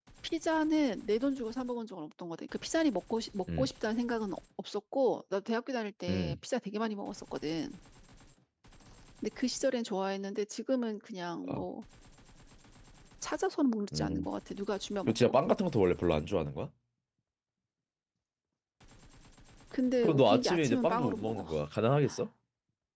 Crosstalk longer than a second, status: present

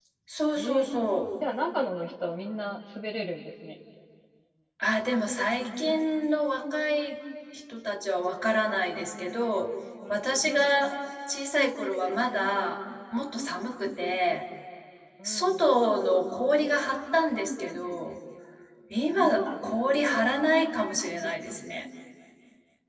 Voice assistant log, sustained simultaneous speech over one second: none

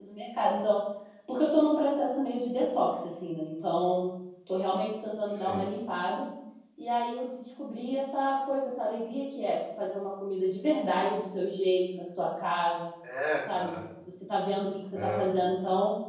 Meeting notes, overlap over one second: none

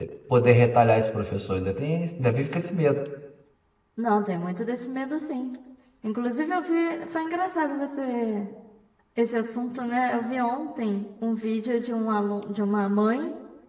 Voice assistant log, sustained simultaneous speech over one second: none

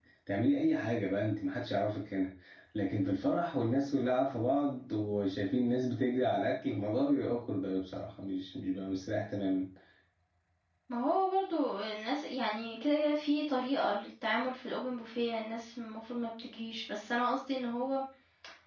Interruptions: none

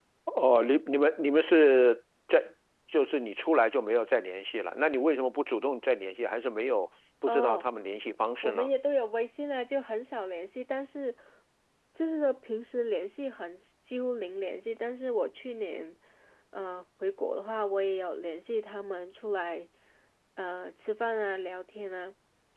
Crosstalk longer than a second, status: none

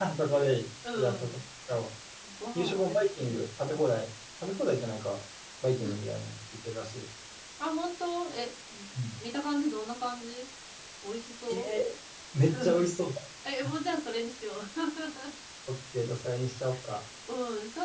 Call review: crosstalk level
present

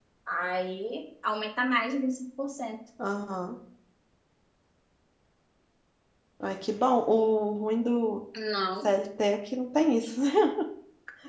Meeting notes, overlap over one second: none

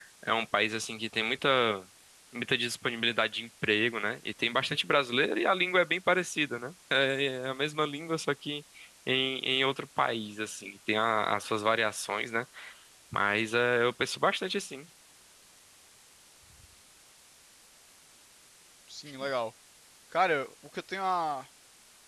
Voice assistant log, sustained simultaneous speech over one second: none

